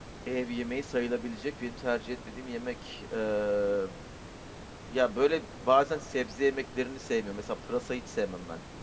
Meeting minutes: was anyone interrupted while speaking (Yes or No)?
No